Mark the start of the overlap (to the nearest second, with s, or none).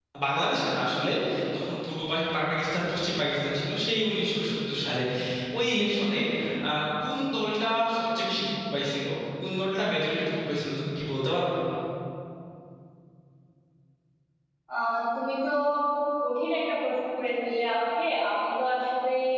none